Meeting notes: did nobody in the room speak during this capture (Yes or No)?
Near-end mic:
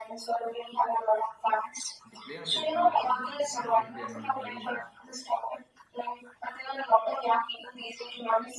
No